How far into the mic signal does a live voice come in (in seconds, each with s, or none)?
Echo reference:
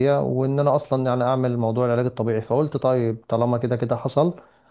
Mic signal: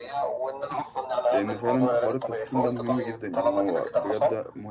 1.3 s